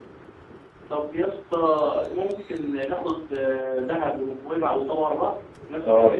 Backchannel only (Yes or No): No